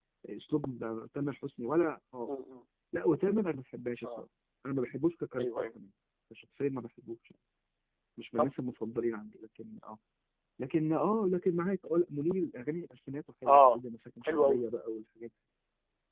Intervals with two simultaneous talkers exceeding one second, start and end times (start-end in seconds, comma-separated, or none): none